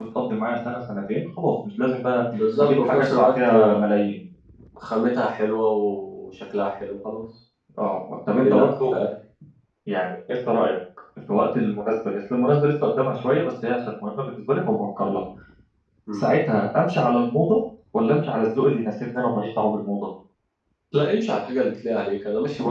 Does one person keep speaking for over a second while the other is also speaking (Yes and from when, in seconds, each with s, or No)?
Yes, from 2.6 s